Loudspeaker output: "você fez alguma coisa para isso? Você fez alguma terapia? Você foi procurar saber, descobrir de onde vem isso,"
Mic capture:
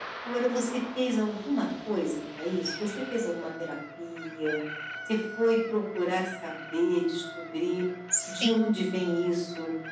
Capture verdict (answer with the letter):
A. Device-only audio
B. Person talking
B